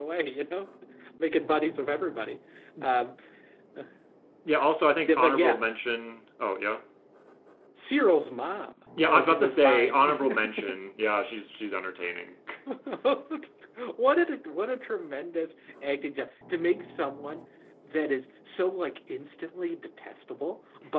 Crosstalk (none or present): present